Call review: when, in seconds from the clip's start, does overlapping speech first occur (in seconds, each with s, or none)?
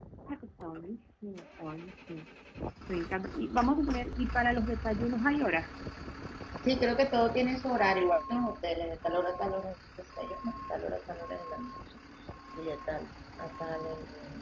none